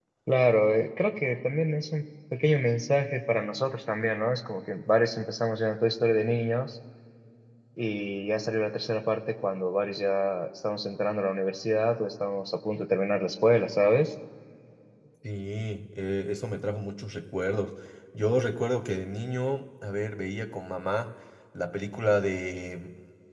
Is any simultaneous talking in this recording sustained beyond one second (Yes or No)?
No